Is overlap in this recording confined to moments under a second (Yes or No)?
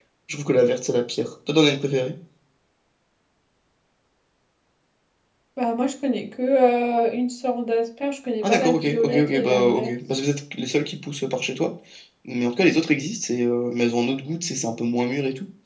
No